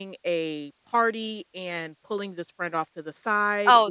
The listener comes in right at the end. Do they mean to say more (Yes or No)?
Yes